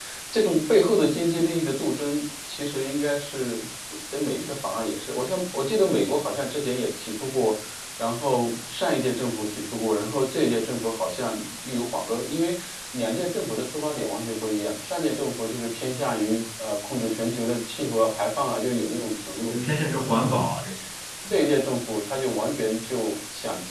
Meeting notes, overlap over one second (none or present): none